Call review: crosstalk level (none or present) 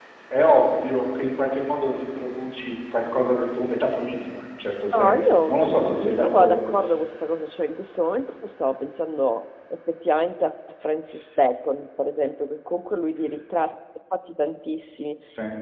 present